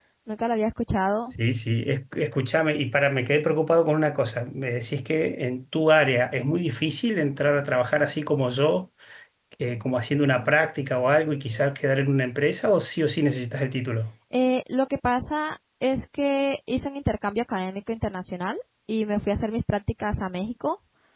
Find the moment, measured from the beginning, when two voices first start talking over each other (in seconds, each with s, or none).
none